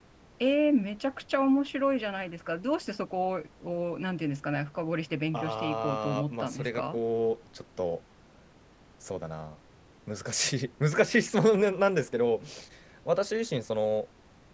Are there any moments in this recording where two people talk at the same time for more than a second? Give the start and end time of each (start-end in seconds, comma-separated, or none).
5.3-7.0